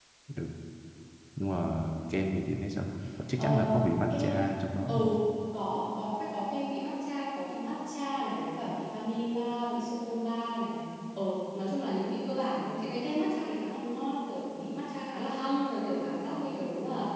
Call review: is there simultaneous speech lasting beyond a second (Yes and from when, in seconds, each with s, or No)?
Yes, from 3.4 s